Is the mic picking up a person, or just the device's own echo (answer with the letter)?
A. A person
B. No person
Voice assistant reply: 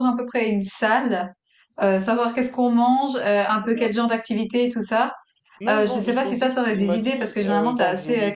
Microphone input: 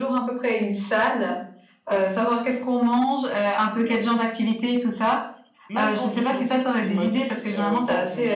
B